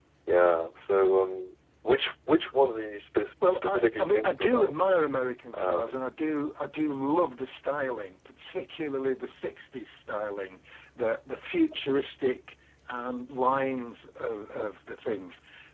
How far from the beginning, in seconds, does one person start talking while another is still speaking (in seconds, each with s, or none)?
3.5 s